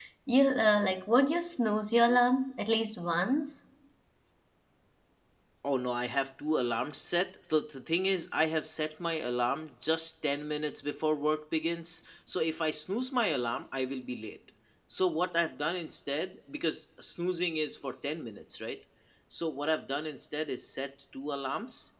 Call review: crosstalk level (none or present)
none